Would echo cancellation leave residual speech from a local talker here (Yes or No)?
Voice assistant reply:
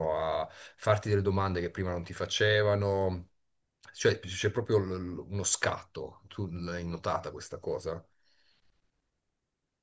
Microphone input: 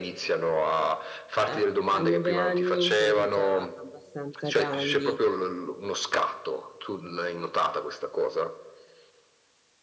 Yes